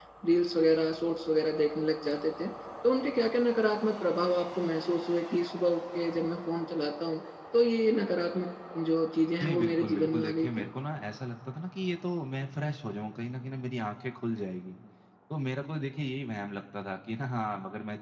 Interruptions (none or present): present